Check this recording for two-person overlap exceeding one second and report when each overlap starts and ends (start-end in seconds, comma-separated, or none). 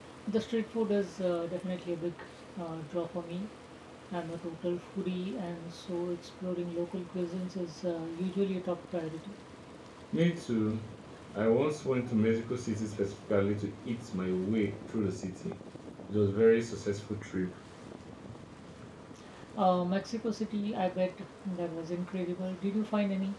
none